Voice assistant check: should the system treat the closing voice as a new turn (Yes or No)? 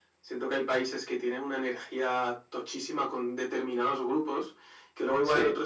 No